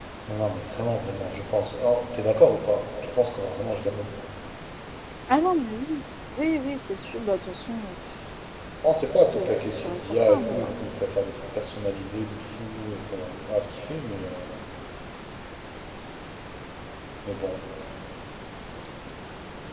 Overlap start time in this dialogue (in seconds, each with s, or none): 9.2 s